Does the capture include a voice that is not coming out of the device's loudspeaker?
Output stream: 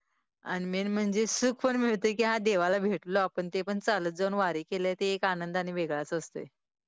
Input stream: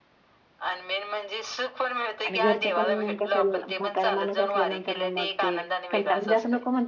Yes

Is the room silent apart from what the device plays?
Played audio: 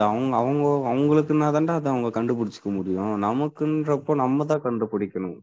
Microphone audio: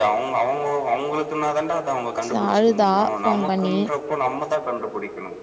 No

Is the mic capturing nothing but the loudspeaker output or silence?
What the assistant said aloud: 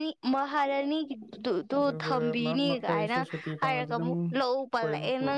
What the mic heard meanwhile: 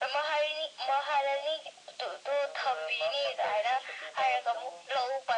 Yes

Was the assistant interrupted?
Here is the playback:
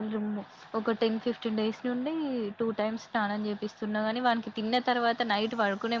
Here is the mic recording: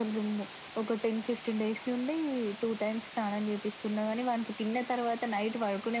No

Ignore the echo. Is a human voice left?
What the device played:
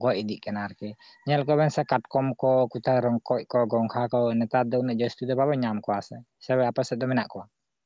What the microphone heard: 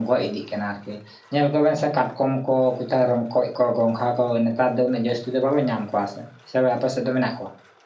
No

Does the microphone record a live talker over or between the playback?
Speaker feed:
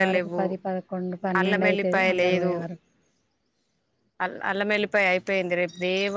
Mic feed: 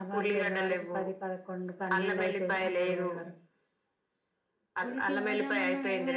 Yes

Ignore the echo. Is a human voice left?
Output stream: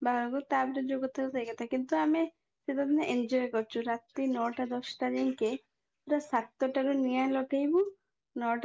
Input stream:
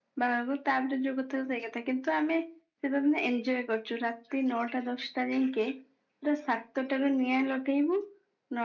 No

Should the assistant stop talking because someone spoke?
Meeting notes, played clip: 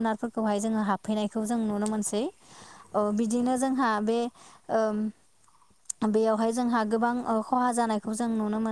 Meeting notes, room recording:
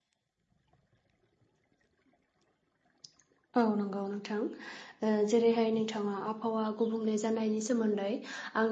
Yes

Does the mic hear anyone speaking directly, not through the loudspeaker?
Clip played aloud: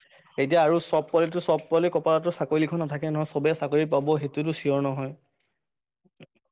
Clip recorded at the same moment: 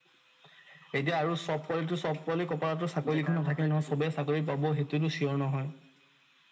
Yes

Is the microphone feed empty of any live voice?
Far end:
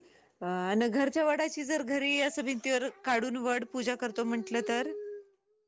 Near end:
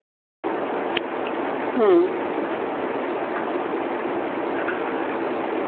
No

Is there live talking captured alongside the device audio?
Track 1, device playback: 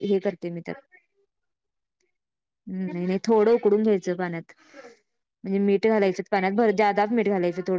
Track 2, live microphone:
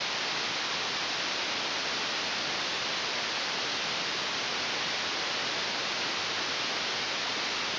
No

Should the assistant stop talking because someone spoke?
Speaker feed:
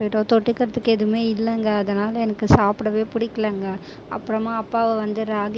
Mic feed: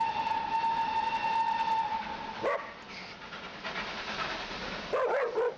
No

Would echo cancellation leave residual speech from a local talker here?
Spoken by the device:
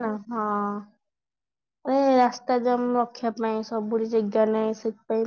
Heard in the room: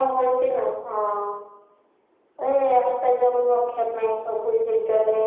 No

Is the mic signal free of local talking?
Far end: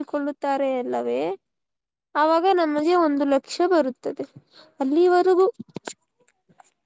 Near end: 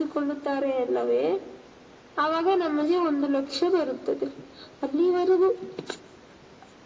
Yes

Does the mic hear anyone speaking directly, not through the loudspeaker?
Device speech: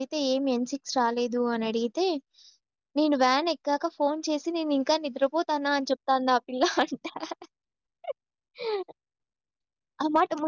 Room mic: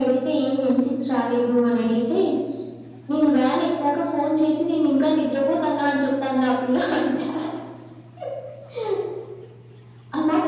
No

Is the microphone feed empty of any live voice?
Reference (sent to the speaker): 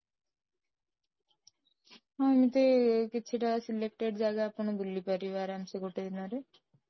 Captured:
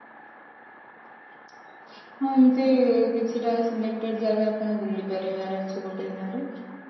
Yes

